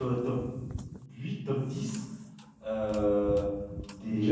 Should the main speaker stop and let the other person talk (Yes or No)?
No